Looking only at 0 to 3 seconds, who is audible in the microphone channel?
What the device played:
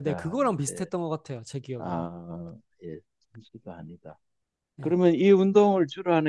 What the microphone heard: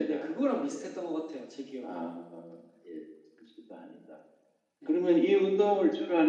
echo only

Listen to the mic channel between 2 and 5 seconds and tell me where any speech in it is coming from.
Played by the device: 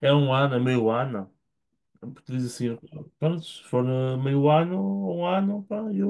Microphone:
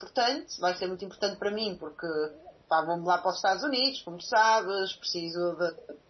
user only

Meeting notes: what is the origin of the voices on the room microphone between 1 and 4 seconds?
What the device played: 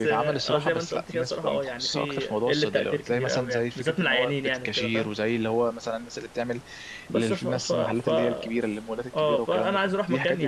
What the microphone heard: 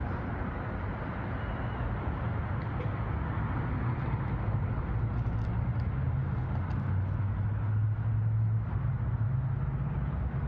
neither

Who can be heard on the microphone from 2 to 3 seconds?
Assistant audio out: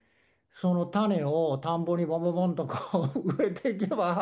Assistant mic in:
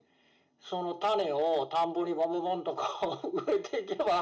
echo only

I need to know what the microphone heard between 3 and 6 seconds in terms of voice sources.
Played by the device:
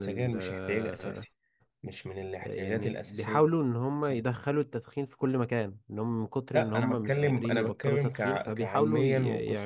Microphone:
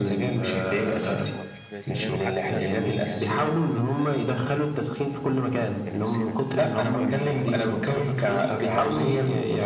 both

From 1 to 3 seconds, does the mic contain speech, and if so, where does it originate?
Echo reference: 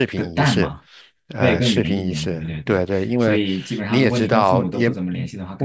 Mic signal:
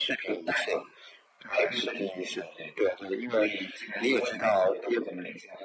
echo only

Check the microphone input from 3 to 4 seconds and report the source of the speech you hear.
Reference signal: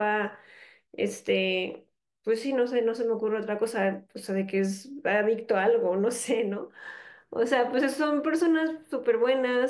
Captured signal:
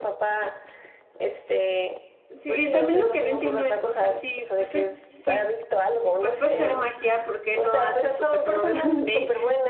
both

